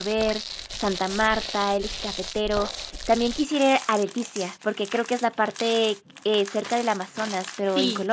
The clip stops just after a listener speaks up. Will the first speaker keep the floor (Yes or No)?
No